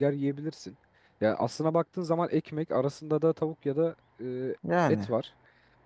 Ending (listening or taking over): listening